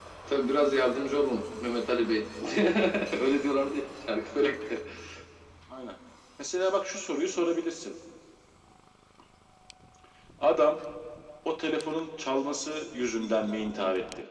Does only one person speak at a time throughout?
Yes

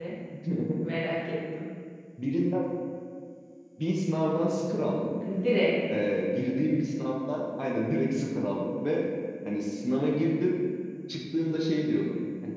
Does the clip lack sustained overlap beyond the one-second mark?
Yes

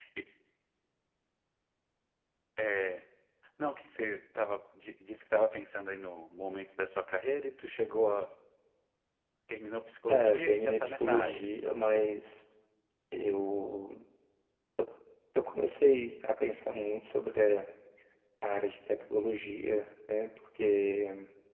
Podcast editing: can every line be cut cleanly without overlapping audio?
No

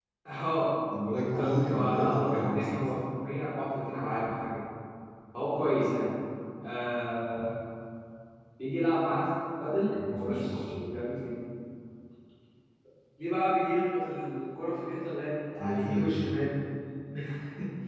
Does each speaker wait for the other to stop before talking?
No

